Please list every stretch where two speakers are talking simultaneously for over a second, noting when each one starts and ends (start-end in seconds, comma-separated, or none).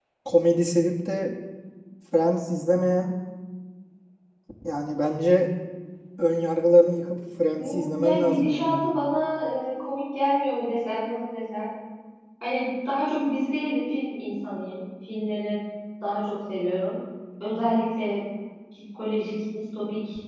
7.5-8.8